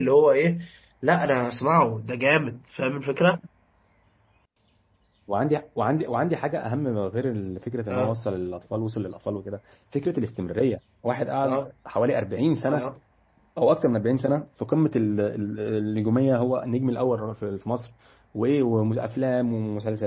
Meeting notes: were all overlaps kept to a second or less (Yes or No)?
Yes